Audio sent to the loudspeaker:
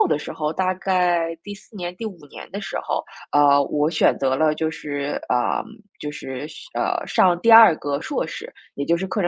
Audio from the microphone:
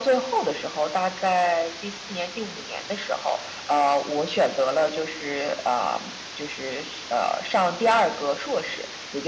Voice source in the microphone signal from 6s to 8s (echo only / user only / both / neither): echo only